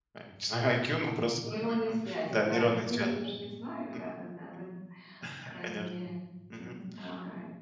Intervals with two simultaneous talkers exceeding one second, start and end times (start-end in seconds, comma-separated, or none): 1.7-3.1